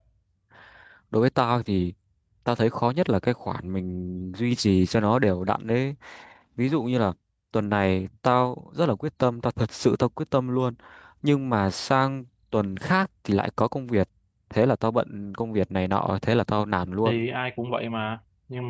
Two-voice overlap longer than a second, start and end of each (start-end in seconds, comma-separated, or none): none